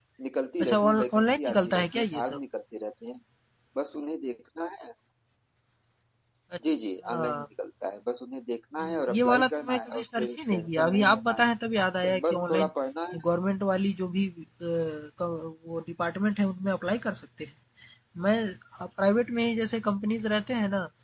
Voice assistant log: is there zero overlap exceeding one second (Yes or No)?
No